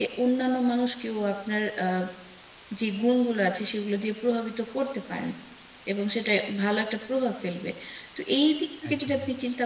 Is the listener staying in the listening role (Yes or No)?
Yes